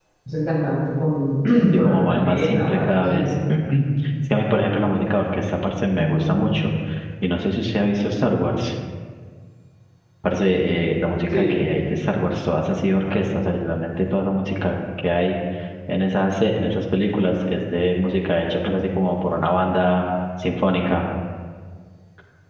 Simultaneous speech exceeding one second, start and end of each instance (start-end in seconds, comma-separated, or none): 1.7-3.2